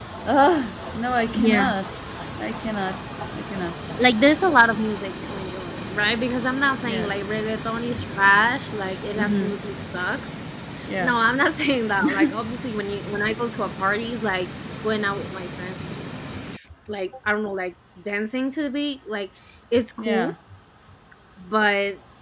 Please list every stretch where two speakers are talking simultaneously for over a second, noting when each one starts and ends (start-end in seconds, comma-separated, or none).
none